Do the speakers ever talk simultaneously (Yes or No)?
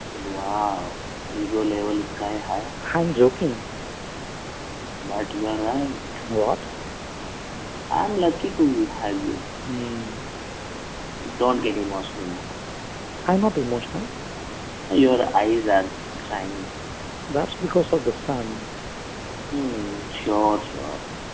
No